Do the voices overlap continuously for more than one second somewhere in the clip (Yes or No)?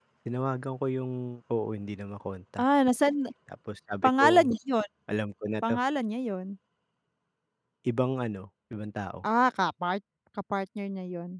No